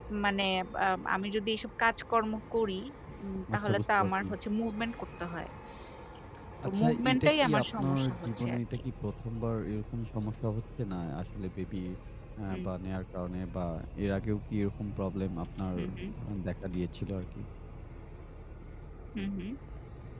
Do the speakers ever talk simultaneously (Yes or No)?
Yes